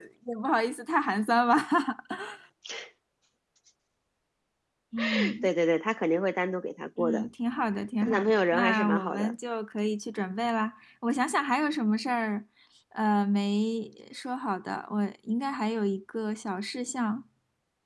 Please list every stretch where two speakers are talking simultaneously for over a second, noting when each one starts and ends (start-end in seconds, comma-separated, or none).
8.0-9.3